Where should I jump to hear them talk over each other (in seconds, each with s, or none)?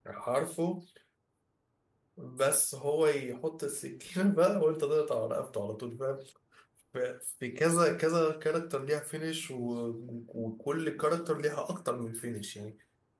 none